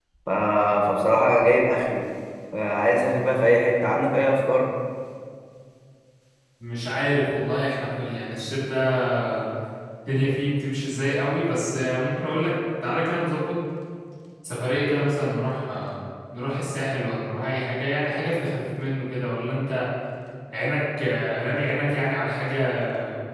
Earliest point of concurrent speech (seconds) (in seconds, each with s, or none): none